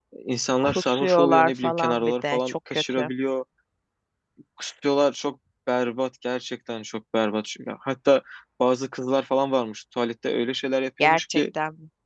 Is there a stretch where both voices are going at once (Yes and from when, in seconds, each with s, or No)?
Yes, from 0.6 s